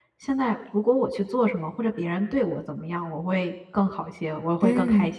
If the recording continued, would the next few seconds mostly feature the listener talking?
No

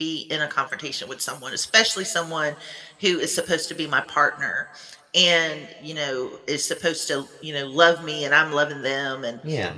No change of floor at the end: Yes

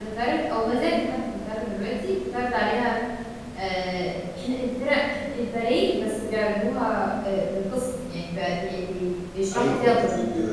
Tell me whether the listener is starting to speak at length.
Yes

